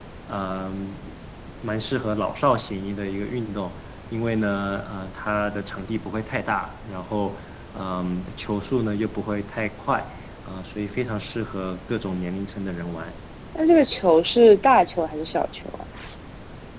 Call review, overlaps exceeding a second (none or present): none